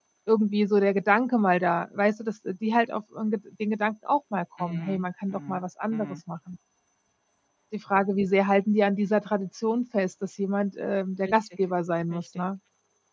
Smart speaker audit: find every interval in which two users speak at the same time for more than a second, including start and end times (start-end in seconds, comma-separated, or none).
4.6-6.2